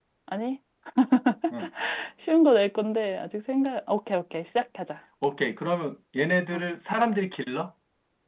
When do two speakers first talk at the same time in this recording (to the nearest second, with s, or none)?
none